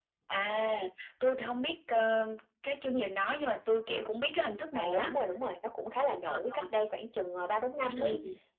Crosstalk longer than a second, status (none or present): none